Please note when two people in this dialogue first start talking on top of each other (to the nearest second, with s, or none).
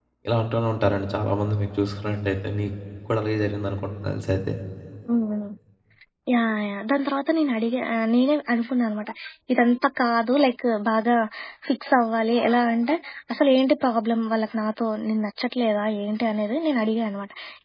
none